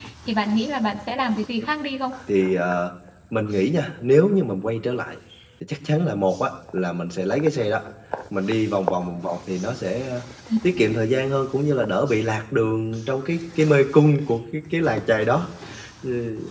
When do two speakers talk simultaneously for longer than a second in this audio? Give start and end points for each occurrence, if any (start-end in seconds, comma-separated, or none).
none